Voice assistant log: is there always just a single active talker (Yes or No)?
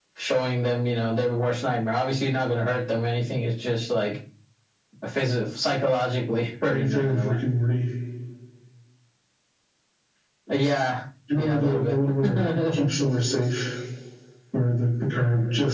No